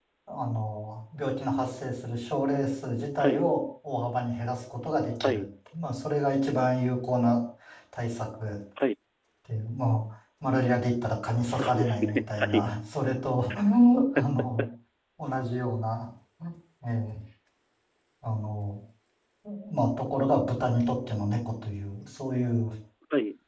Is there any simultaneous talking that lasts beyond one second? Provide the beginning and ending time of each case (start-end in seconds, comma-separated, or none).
11.5-12.7